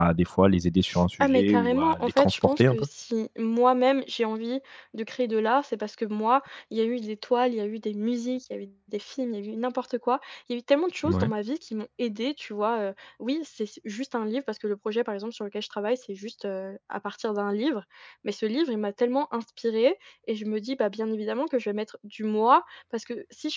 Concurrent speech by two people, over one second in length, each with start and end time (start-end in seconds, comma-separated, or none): 1.2-2.9